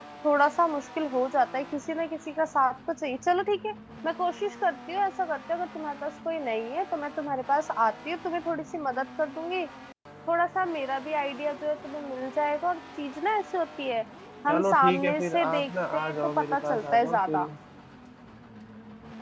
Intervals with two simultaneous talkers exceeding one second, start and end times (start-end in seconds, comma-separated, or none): 14.5-17.4